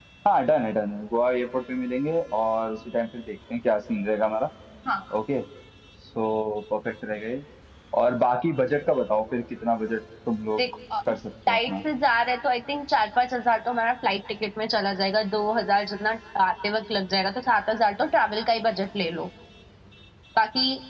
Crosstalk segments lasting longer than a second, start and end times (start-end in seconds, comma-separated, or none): none